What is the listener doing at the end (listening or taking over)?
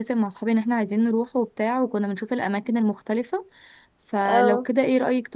listening